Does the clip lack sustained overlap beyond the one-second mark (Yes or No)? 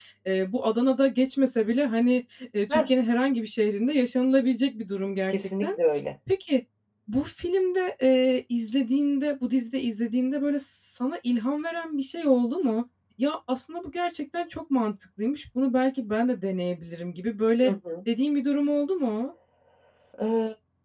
Yes